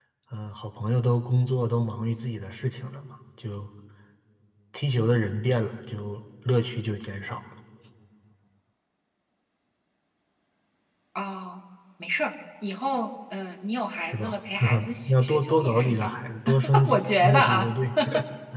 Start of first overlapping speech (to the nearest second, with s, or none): 14 s